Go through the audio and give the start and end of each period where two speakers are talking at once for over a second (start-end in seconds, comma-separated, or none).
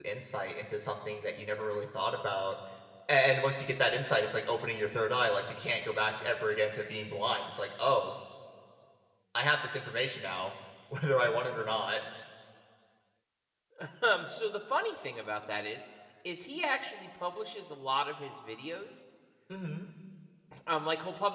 none